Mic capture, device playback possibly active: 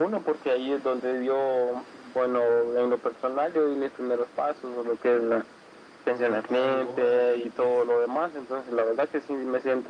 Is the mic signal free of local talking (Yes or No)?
No